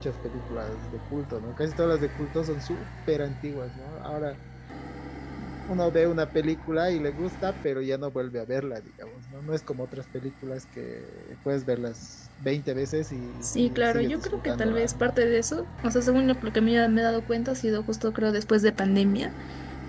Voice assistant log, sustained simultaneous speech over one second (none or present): present